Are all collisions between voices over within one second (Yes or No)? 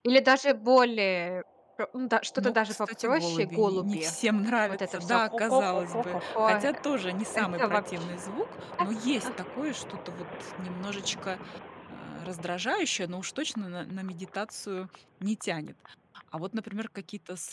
No